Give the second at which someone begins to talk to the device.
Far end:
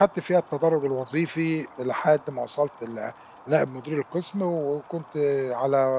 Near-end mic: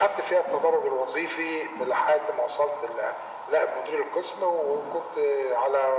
none

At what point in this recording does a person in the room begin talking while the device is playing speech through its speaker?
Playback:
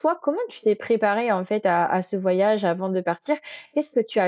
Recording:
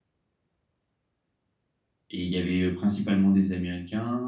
2.1 s

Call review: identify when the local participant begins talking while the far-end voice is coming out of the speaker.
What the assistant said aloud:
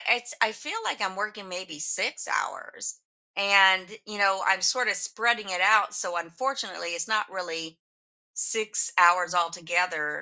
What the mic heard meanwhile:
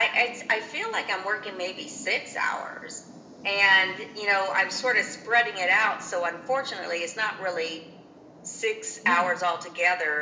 9.0 s

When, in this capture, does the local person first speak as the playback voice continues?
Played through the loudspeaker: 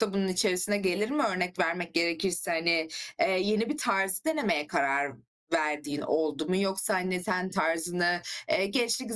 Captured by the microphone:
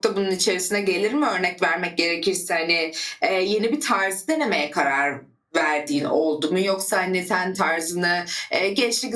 none

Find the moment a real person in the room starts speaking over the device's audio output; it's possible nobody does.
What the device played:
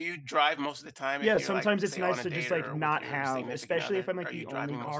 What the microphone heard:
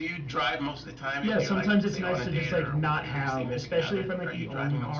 none

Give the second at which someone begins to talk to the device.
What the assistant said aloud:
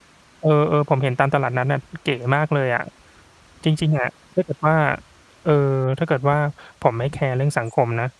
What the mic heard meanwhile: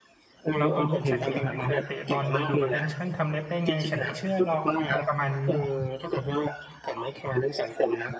0.6 s

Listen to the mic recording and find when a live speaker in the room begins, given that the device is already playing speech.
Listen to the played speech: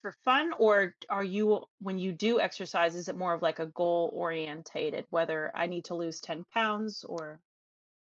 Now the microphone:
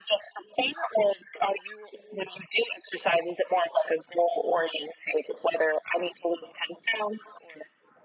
none

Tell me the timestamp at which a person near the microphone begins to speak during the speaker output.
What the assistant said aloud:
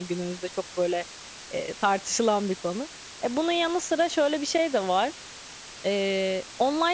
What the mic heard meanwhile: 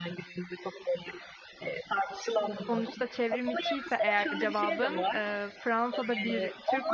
2.7 s

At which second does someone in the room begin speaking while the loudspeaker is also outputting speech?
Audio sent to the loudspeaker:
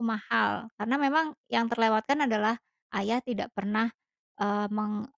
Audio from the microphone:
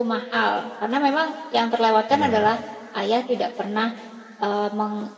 2.1 s

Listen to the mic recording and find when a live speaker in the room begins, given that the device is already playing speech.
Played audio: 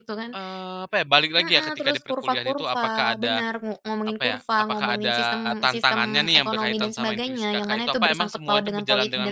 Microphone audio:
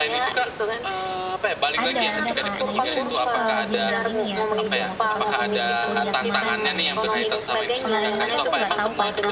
1.8 s

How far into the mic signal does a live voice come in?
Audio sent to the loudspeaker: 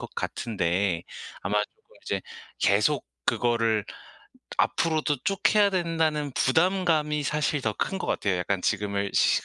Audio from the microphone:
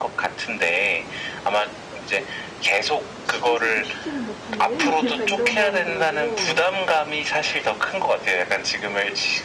3.2 s

